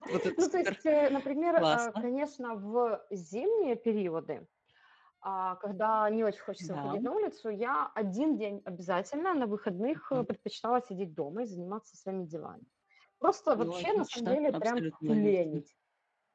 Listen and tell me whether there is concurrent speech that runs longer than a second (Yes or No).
Yes